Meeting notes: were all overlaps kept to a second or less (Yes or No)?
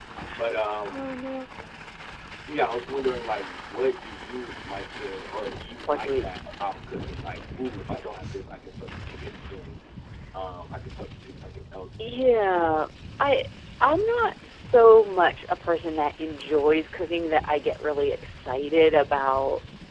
Yes